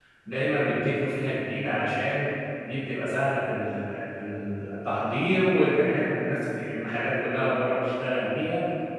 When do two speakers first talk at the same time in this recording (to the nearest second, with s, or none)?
none